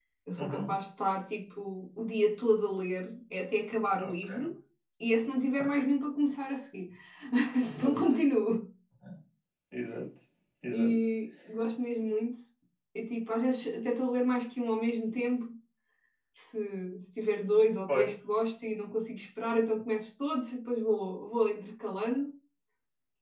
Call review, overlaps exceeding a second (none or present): none